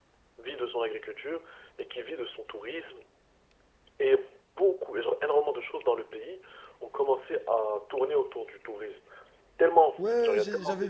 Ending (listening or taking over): taking over